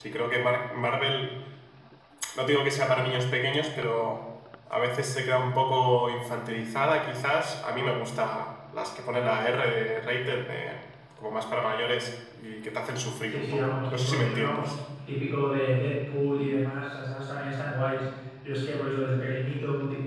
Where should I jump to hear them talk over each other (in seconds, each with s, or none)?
13.3 s